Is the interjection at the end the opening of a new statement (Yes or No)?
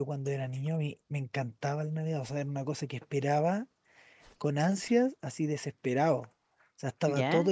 No